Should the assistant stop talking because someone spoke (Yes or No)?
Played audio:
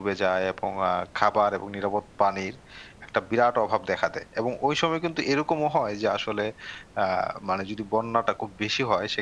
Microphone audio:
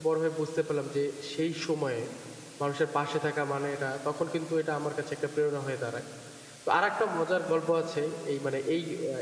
Yes